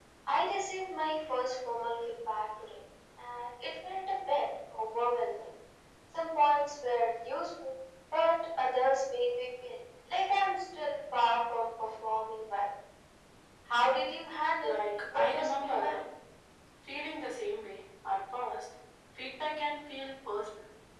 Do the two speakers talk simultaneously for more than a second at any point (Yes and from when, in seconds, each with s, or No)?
Yes, from 14.6 s